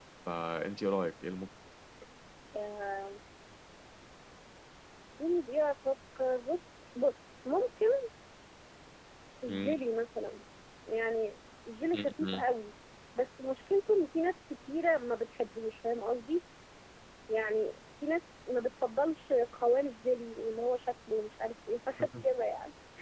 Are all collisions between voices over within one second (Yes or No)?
Yes